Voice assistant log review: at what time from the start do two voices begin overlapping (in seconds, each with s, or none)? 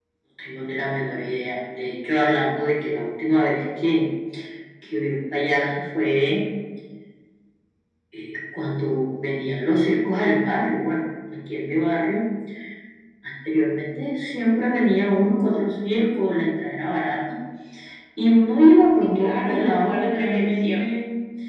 19.2 s